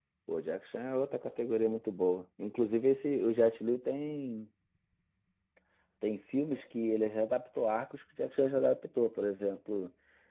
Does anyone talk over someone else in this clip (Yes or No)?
No